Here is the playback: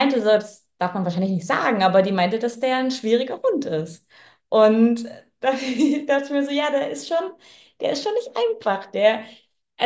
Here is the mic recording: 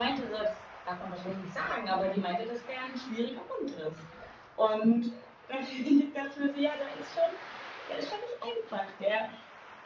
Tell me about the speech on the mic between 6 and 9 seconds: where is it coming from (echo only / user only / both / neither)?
echo only